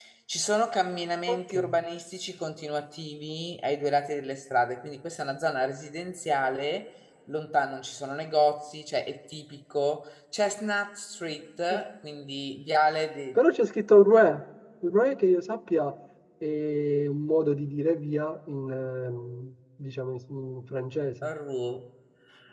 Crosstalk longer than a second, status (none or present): none